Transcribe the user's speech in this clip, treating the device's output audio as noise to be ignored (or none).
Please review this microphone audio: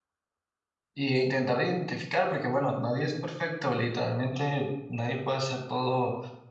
Y intentar identificar, porque bueno, nadie es perfecto, literalmente nadie puede hacer todo